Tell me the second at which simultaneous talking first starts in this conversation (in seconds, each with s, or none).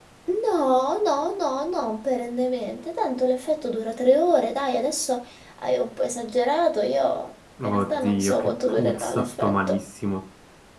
7.6 s